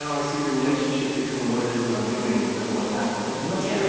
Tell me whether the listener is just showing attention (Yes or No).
No